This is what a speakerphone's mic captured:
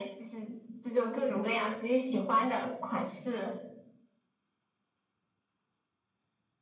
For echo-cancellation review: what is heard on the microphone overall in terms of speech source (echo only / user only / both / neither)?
echo only